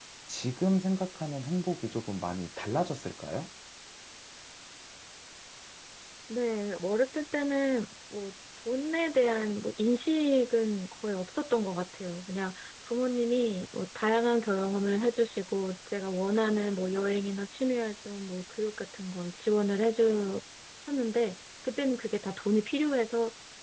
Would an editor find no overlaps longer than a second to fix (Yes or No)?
Yes